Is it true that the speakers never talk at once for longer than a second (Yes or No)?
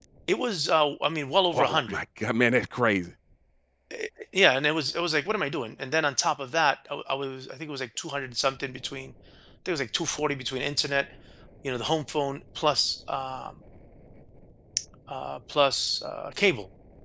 Yes